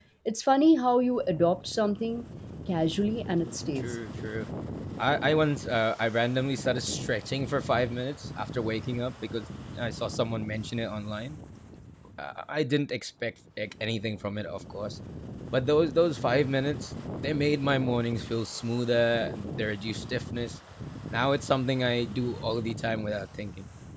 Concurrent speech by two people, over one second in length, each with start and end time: none

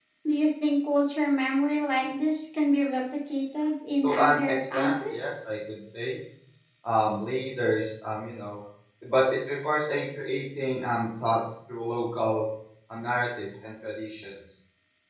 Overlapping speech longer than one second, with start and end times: 4.0-5.2

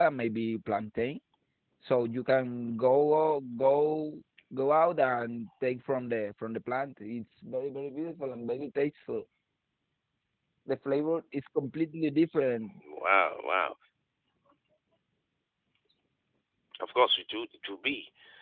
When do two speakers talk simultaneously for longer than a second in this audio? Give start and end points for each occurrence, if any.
none

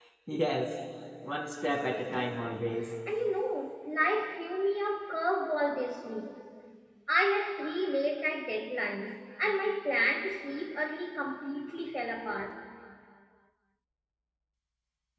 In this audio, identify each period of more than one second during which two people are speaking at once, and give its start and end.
none

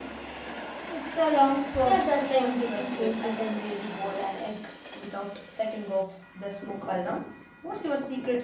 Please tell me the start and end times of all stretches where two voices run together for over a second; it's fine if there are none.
1.8-3.6

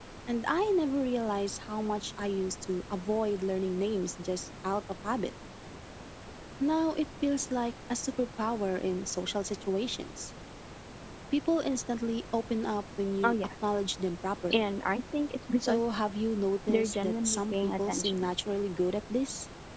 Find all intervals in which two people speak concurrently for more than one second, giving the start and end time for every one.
16.7-18.3

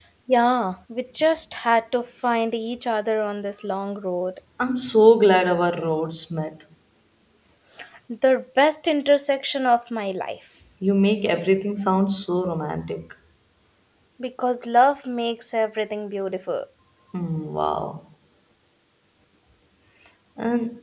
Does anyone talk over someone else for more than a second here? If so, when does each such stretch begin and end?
none

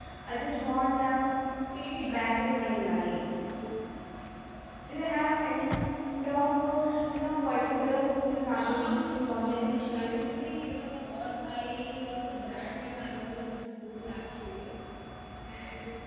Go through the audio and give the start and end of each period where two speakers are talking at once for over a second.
8.5-10.2

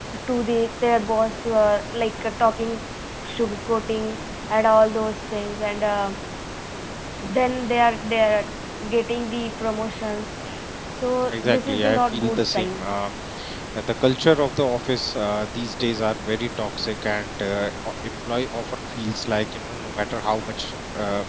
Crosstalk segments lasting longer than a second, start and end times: 11.3-12.9

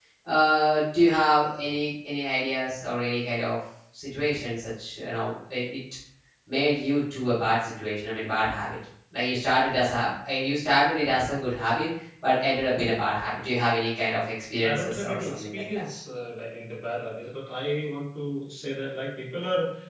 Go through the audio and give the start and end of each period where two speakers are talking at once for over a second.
14.6-15.8

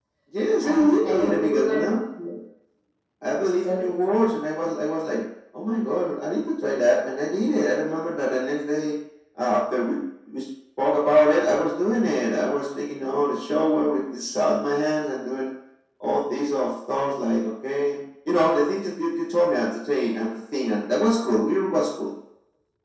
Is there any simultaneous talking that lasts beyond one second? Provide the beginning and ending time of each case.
0.6-2.0

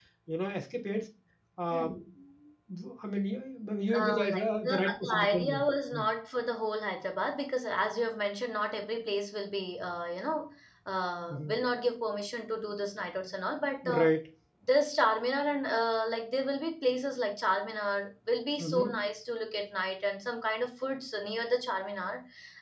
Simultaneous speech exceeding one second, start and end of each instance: 3.9-5.6

